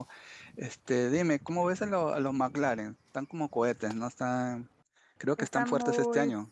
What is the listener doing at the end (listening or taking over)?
taking over